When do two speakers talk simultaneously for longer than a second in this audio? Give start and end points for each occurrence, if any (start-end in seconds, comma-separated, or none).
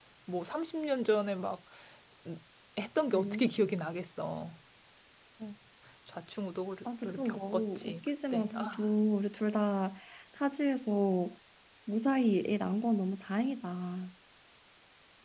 7.0-8.8